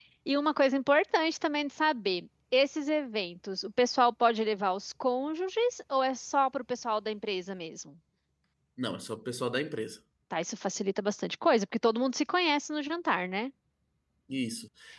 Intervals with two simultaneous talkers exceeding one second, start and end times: none

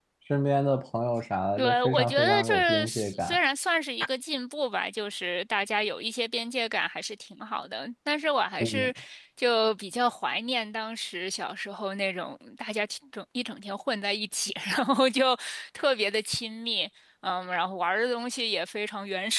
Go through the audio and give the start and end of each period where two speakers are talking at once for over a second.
1.6-3.4

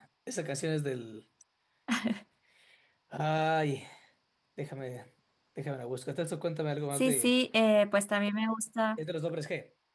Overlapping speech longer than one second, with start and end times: none

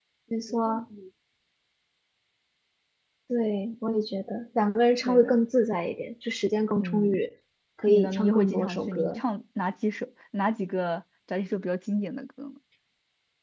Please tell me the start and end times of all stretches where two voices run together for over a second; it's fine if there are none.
7.9-9.2

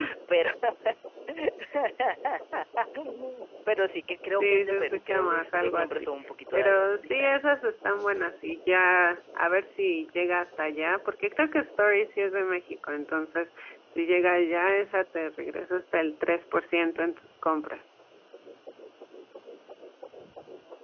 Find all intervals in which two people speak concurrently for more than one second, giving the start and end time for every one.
4.4-6.1

